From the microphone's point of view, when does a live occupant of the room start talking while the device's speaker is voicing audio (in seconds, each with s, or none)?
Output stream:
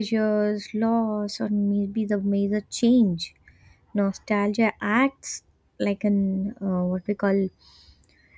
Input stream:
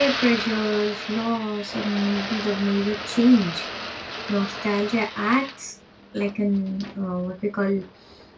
none